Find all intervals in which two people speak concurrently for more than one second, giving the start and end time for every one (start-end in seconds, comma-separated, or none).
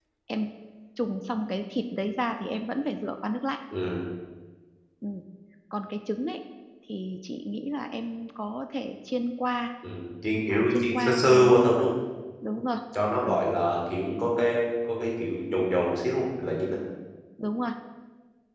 10.5-11.8